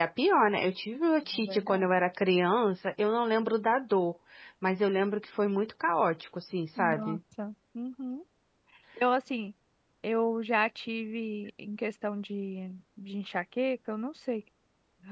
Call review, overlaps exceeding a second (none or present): none